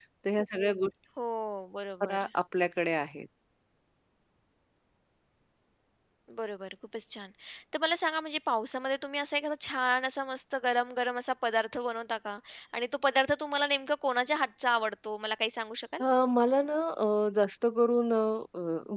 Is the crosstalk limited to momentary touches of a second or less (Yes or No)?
Yes